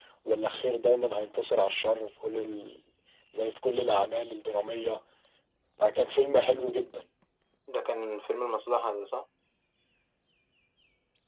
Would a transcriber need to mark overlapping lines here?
No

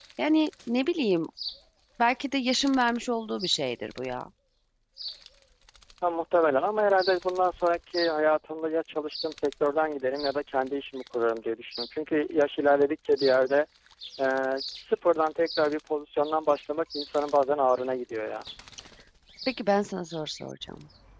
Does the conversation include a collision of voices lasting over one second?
No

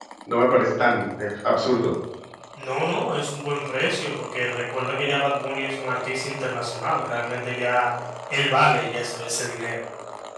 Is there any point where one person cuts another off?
No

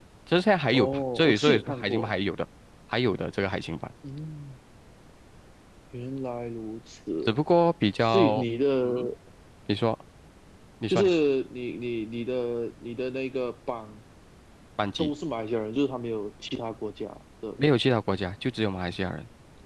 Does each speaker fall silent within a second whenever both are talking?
No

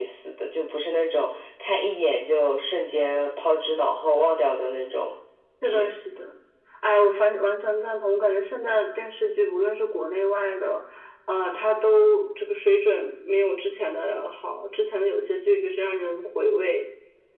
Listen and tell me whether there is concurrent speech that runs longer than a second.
No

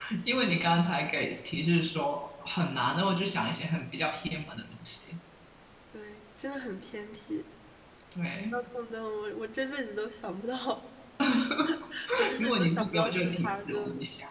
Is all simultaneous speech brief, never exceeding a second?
No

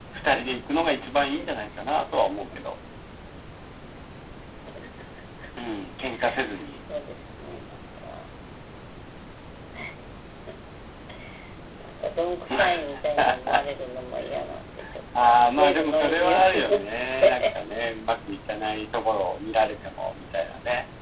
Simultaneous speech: Yes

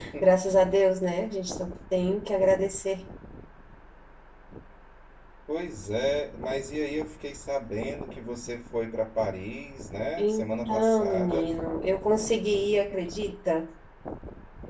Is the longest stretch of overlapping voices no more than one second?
No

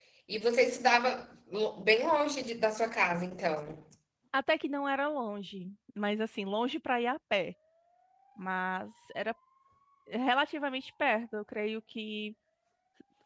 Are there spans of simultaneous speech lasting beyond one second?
No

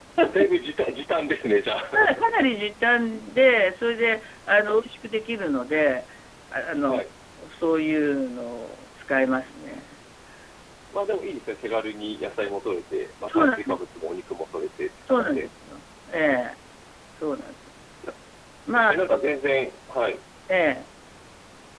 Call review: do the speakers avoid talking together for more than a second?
Yes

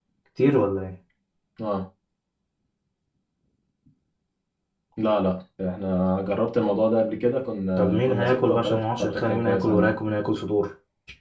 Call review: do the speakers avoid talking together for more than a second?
No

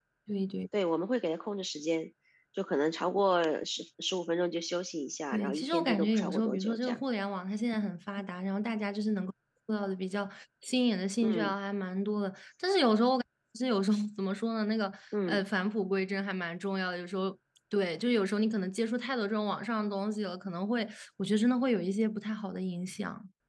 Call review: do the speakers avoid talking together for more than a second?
No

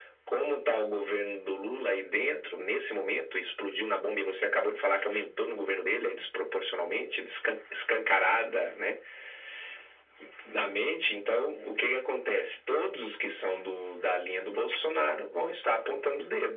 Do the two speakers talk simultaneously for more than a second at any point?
No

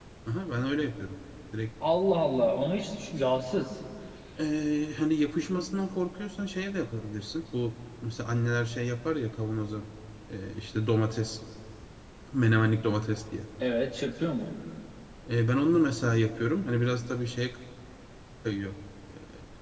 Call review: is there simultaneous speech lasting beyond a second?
No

